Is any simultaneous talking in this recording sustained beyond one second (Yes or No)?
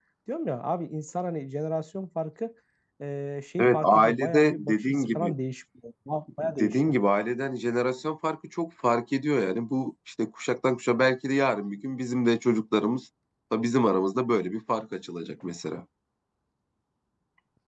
Yes